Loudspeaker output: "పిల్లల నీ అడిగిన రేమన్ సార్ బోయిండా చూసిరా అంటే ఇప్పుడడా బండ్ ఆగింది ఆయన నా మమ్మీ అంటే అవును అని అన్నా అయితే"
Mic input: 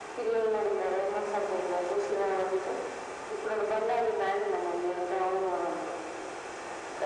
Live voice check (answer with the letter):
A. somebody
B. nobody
B